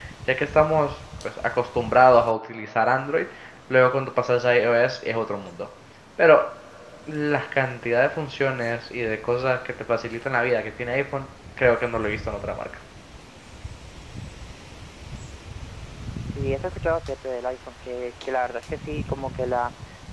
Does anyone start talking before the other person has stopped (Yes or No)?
No